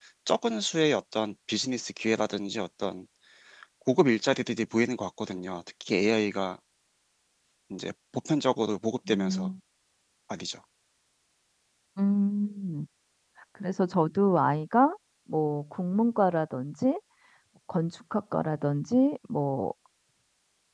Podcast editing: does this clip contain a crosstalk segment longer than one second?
No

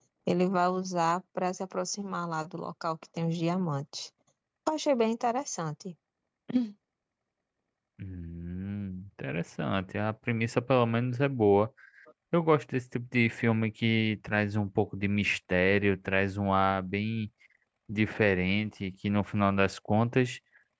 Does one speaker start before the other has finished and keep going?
No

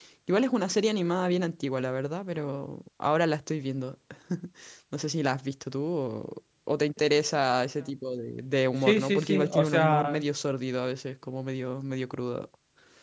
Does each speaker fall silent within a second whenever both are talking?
No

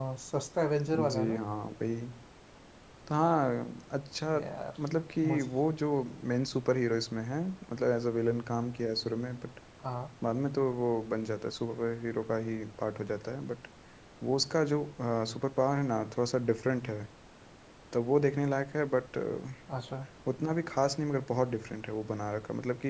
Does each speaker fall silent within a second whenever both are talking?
Yes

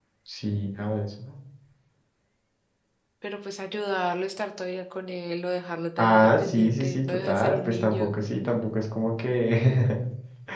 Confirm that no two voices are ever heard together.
No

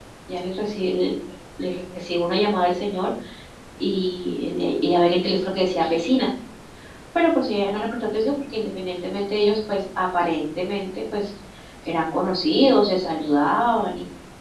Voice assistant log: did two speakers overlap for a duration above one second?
No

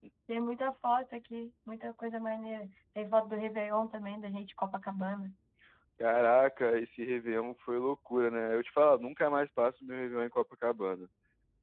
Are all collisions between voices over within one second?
Yes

